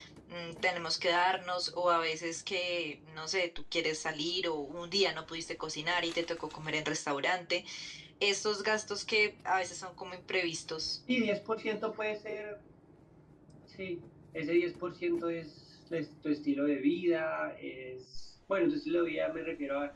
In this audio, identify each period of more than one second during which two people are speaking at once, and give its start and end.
none

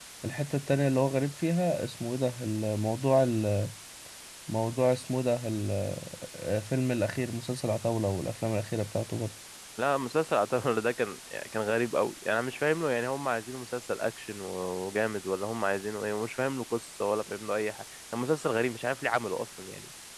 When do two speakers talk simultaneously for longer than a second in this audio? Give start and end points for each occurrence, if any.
none

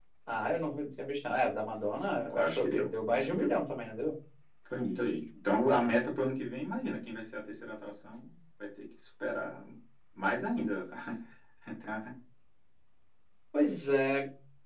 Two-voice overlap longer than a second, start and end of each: 2.3-3.6

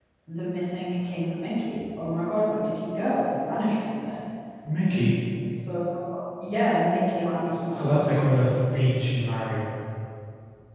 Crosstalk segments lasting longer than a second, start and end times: none

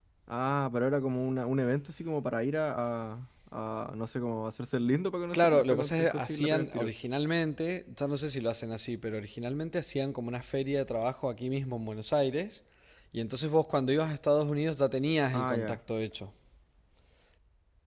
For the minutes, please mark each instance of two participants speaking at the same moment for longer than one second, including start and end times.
5.3-6.9

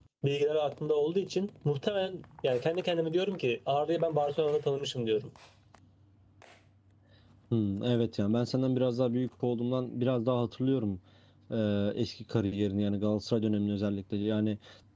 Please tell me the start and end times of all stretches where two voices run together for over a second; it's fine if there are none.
none

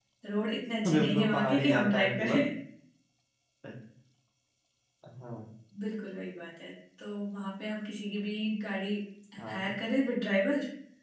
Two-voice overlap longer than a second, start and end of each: 0.9-2.4

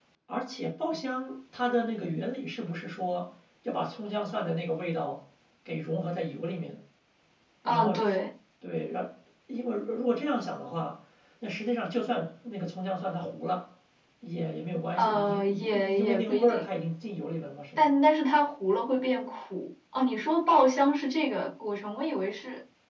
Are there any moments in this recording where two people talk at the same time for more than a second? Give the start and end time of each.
15.0-16.6

